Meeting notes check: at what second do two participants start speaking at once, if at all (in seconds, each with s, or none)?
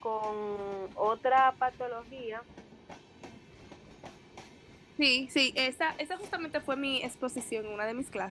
none